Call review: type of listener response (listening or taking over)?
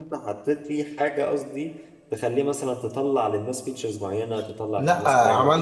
taking over